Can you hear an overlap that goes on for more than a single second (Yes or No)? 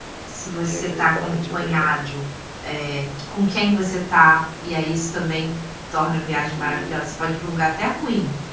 Yes